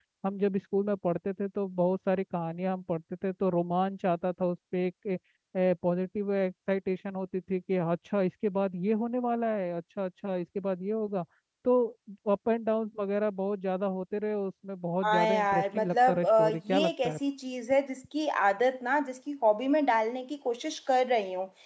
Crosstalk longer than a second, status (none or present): present